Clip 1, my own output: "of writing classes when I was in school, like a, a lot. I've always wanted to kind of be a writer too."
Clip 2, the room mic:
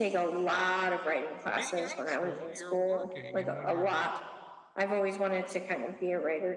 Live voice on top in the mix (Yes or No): No